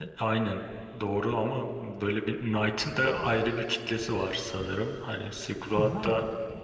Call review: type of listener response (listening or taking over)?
taking over